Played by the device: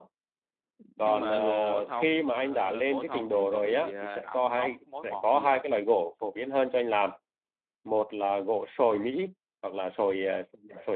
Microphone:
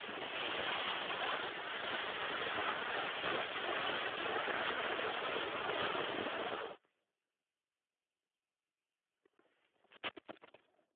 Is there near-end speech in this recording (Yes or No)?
No